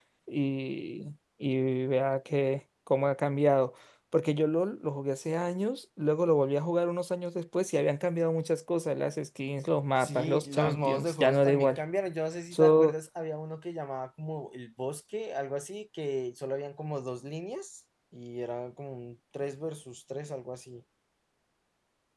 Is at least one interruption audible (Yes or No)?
Yes